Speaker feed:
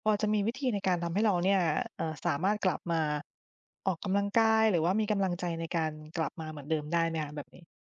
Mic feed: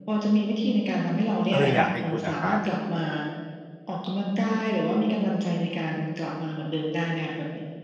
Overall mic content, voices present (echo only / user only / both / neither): both